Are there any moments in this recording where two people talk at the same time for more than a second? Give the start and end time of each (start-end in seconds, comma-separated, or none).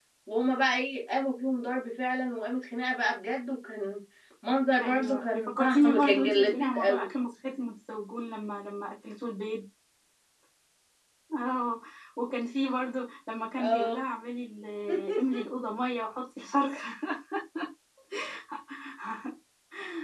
4.8-7.1